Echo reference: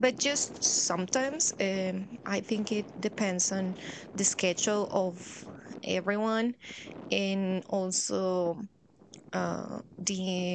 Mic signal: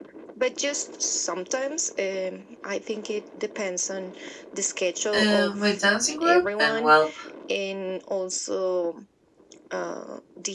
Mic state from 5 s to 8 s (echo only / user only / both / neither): both